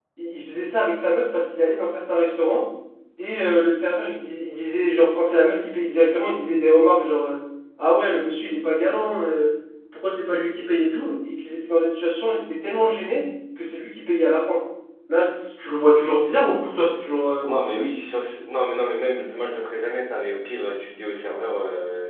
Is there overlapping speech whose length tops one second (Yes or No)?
No